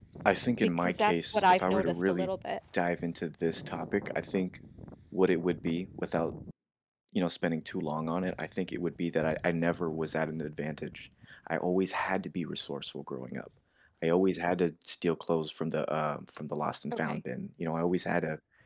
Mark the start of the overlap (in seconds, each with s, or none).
0.8 s